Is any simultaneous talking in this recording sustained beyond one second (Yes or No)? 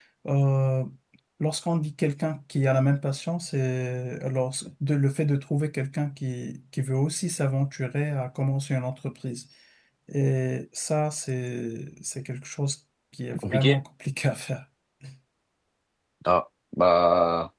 No